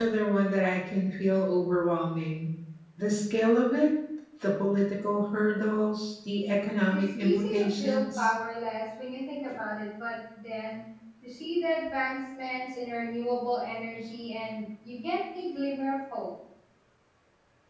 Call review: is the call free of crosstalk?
No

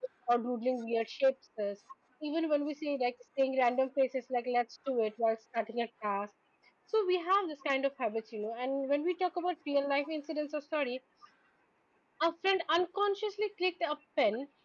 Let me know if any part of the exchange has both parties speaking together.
No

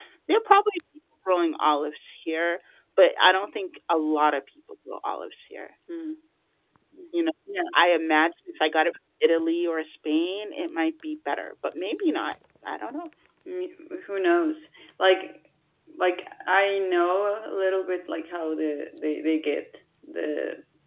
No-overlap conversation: Yes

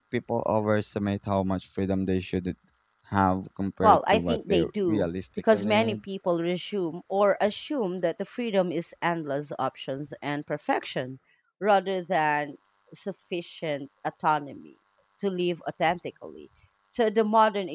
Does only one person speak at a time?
No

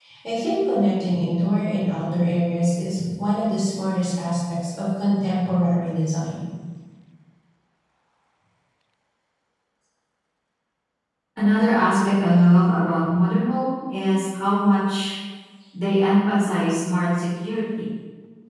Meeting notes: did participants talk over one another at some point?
No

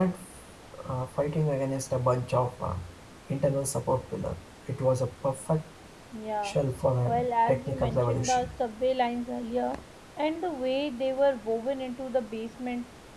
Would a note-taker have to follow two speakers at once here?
Yes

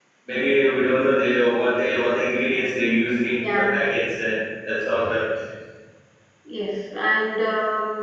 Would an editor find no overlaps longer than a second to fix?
Yes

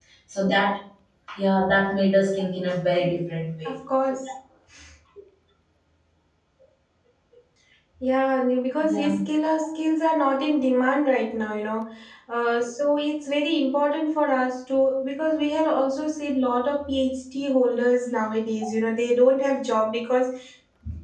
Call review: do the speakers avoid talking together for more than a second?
Yes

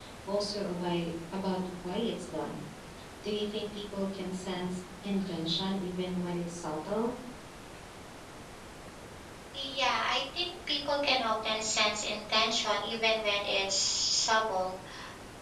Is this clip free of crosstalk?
Yes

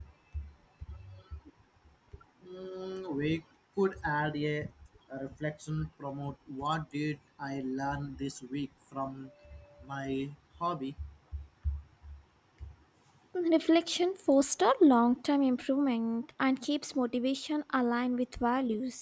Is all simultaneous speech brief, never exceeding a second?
Yes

